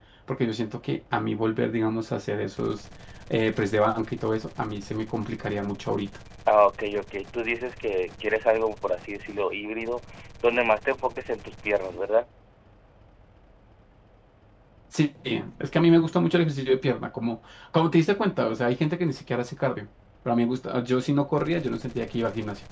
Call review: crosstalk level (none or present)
none